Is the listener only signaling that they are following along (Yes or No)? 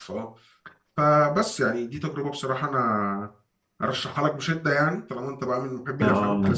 No